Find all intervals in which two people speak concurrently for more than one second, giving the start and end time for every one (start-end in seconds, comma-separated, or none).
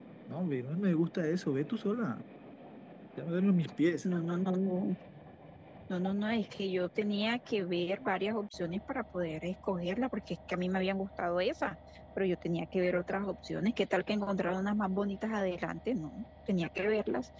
none